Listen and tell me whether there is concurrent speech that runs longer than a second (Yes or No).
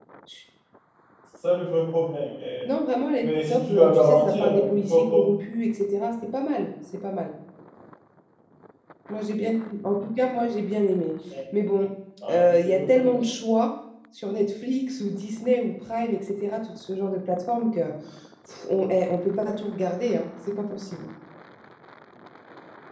Yes